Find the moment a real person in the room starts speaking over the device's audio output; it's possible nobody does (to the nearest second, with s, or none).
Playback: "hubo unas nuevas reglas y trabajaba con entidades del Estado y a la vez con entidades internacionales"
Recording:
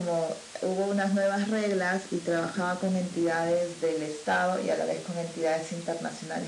none